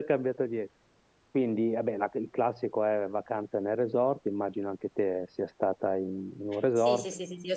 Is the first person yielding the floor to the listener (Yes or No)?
Yes